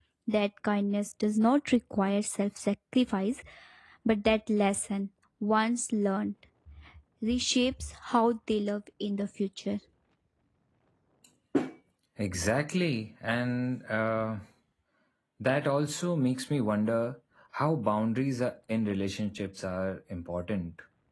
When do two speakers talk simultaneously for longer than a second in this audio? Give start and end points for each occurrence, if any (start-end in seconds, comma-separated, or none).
none